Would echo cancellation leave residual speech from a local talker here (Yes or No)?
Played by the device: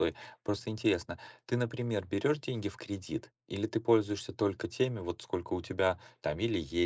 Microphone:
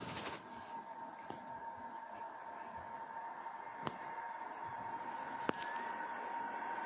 No